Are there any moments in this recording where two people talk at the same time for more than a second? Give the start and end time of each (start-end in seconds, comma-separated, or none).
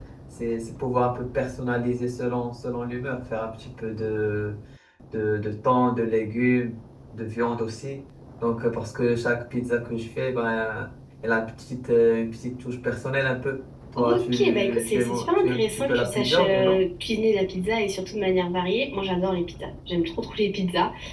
14.0-16.8